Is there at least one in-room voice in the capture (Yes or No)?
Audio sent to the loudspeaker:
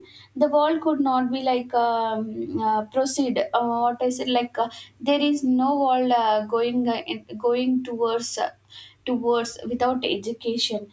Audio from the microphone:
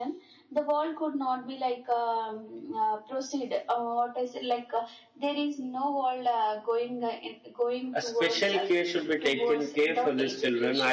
Yes